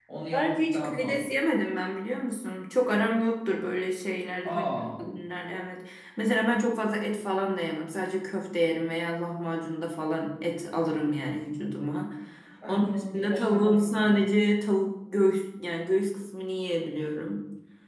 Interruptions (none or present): present